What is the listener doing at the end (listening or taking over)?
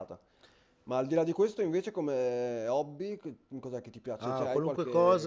taking over